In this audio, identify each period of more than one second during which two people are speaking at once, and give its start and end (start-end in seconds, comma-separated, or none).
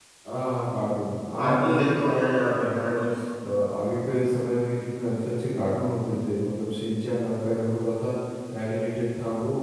1.4-3.0